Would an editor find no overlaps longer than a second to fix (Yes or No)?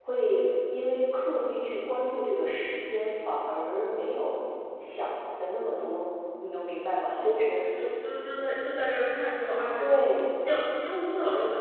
Yes